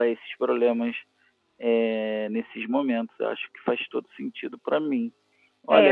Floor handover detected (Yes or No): Yes